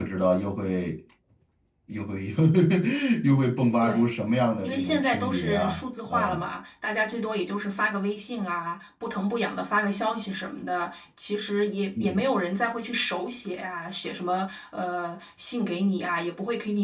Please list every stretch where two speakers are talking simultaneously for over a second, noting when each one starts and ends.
4.6-6.5

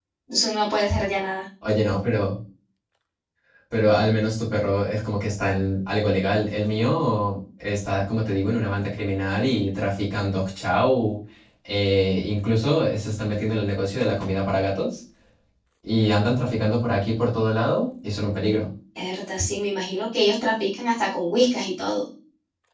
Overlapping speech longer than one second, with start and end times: none

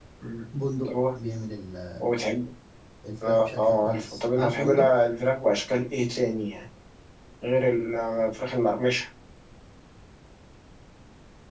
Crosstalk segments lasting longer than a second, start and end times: 3.2-4.9

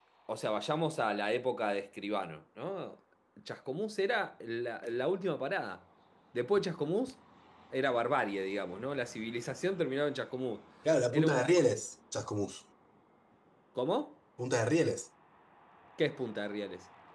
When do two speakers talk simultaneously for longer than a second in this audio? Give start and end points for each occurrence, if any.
none

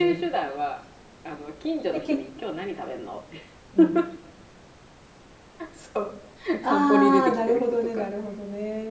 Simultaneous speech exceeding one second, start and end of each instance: 6.6-8.1

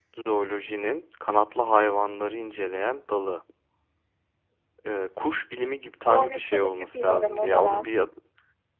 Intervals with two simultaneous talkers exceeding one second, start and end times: 6.1-7.9

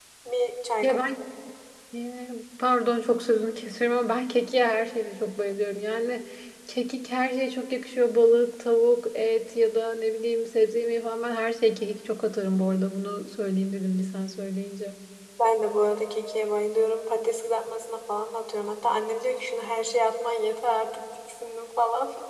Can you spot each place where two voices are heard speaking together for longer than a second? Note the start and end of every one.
none

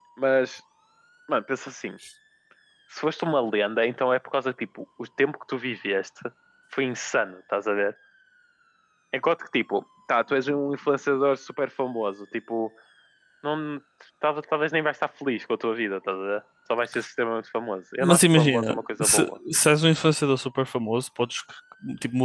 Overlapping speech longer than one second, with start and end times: 18.0-19.3

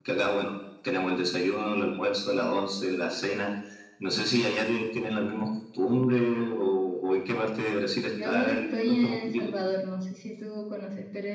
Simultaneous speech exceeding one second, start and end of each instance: 8.2-9.5

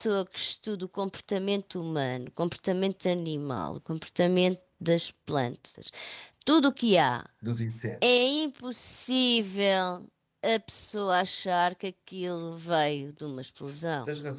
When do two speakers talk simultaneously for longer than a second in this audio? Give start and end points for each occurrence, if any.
none

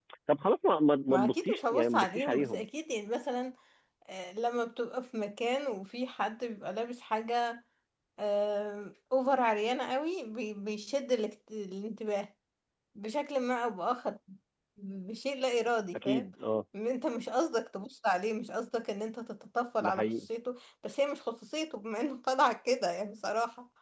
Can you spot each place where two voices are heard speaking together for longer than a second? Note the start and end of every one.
1.1-2.6

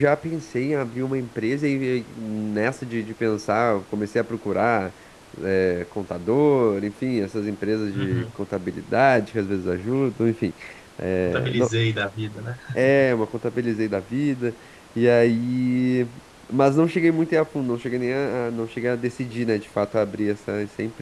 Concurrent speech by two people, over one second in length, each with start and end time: none

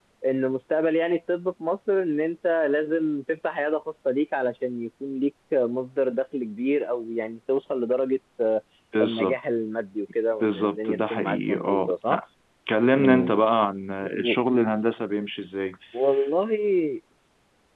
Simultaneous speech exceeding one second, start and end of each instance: 10.4-12.2

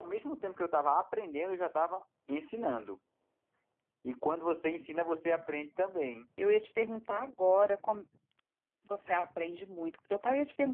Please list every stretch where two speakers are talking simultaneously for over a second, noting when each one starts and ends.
none

